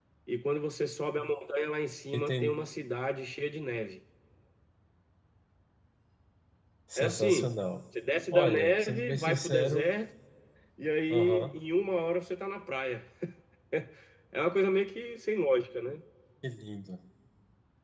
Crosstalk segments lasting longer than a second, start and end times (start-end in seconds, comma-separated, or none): 8.3-9.9